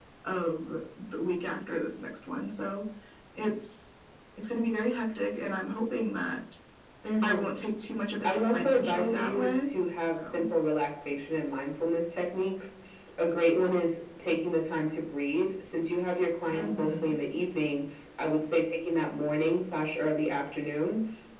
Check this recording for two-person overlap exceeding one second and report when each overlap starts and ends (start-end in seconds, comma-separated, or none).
8.2-9.7